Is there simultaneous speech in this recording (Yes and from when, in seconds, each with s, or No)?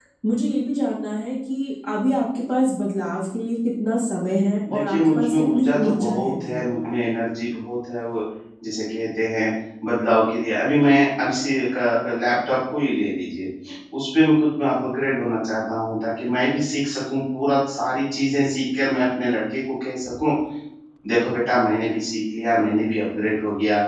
Yes, from 4.7 s